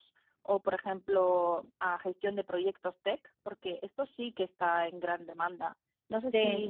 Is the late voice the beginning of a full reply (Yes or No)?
Yes